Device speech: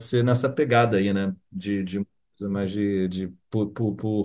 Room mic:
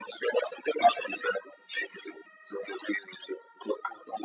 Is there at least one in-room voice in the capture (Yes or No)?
No